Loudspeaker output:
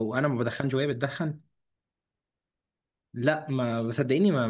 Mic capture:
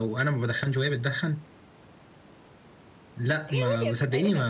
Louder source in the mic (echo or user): echo